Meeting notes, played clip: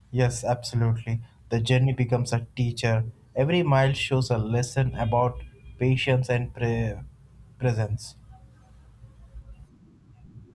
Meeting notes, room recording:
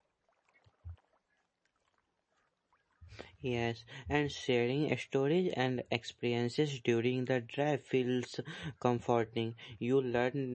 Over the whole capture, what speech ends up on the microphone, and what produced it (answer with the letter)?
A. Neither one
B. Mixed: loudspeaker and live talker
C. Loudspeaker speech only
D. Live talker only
D